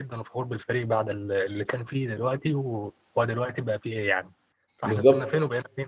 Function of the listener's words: taking over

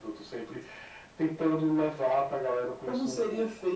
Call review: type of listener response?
taking over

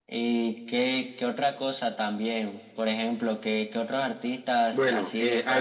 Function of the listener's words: taking over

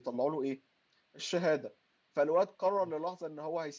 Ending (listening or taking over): listening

